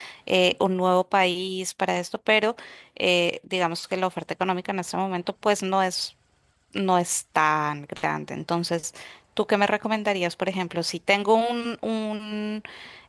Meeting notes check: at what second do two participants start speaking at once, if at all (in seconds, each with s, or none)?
none